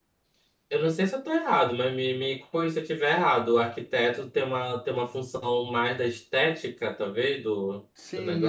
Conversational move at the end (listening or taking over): taking over